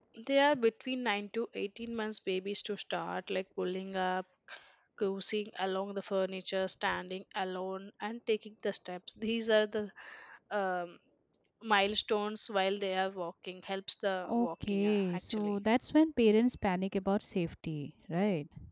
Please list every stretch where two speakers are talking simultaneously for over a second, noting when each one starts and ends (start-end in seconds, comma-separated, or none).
14.2-15.6